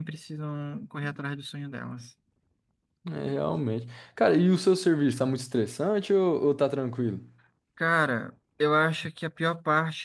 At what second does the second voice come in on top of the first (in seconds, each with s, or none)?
none